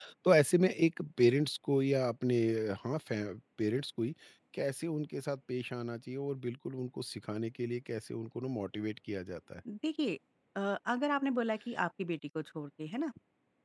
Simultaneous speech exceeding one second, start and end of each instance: none

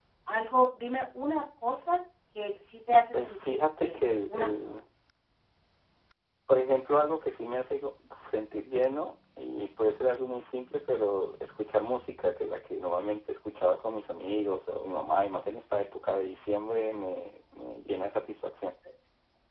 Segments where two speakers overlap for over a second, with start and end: 3.1-4.8

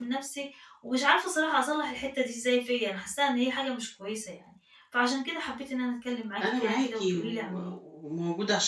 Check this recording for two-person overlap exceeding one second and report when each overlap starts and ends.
6.4-7.7

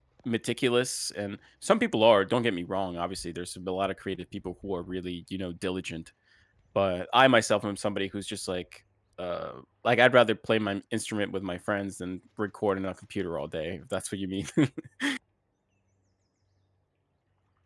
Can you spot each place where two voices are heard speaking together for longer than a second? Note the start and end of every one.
none

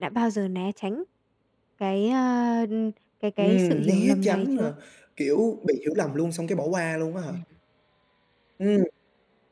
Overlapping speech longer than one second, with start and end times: 3.4-4.6

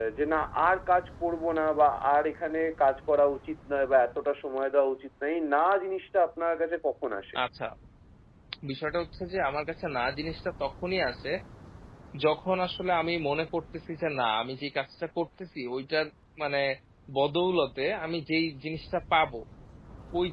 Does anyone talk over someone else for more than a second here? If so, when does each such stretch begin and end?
none

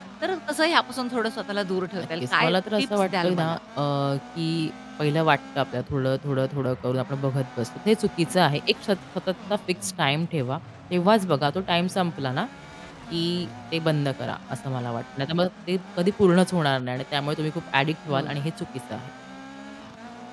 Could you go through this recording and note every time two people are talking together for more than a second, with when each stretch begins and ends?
2.0-3.4

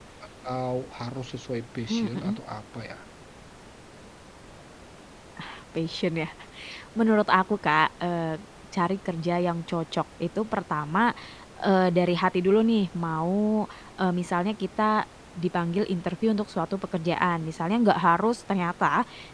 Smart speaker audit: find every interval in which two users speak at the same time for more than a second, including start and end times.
none

